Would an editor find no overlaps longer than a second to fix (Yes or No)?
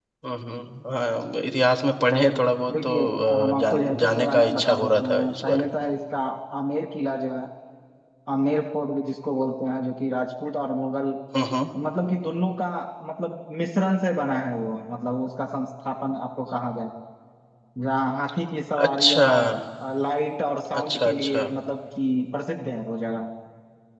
No